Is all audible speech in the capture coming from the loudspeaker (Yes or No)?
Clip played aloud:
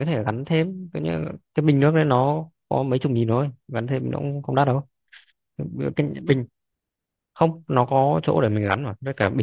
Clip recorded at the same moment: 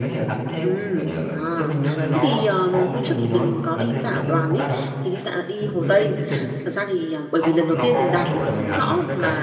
No